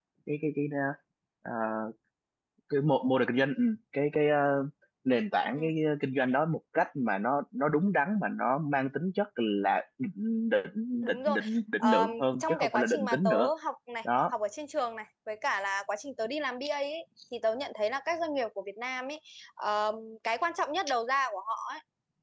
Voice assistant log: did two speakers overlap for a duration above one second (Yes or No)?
Yes